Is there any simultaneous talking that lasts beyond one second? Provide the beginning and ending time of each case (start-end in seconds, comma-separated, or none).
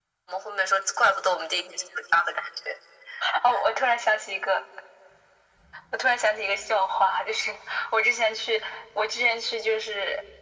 none